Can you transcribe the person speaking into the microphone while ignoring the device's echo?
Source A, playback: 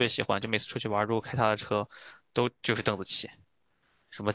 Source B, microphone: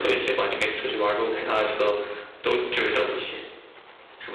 none

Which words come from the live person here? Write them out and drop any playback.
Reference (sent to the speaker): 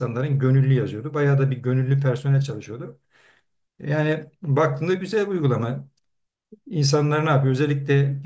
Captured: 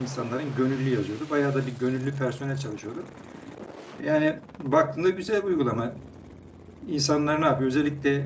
none

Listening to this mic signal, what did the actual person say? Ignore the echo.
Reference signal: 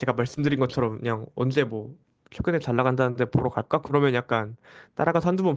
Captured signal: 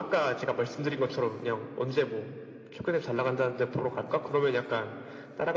none

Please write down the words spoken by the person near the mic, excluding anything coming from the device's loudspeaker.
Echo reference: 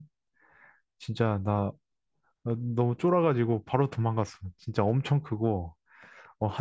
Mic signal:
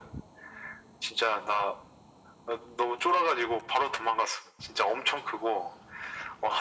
none

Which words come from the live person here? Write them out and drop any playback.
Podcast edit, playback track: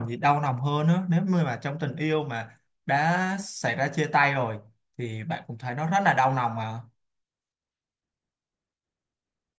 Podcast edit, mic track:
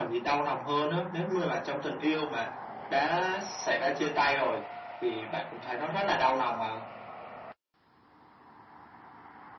none

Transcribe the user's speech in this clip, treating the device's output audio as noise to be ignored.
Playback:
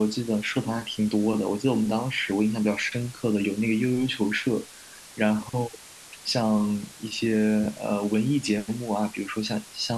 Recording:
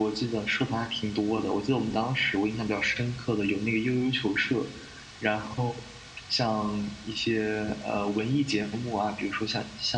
none

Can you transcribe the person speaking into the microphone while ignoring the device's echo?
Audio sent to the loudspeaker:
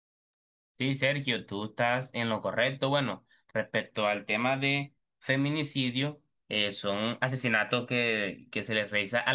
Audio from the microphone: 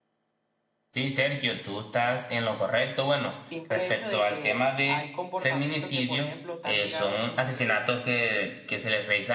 simple hecho de que hay comportamientos que, por ejemplo, están ligados como que

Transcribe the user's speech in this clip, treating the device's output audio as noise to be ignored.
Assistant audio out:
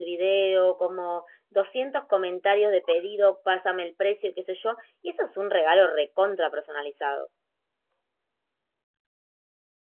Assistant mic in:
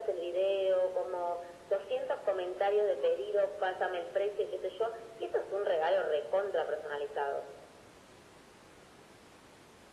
none

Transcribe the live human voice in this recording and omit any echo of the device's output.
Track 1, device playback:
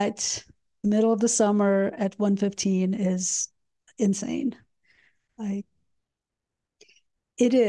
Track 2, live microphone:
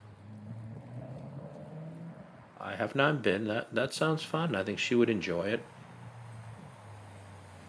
I have not been. That that sounds fun. I think she would enjoy it.

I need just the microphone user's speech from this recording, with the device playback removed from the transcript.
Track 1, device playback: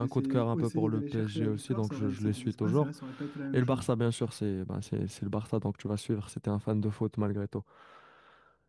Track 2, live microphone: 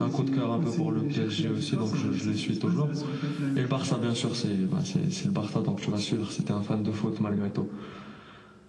none

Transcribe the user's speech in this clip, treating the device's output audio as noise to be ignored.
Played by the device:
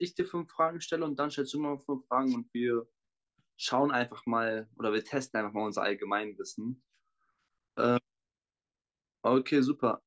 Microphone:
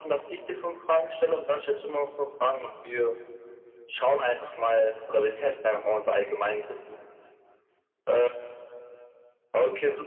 none

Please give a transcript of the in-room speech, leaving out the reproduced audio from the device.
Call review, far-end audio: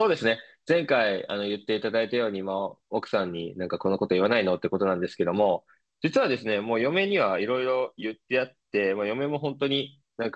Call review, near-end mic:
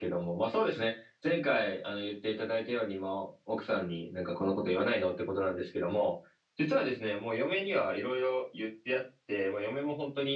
none

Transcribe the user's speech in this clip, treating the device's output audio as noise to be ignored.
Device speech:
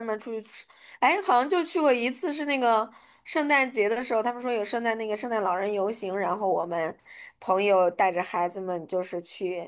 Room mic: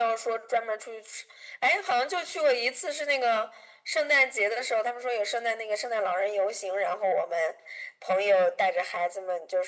none

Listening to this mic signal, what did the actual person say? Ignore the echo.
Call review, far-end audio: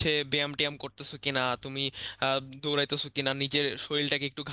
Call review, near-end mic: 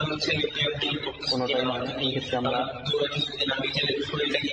কোনোটাই হয় না এই ক্ষেত্রে আমরা

